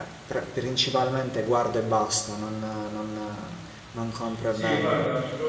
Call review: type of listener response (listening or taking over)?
taking over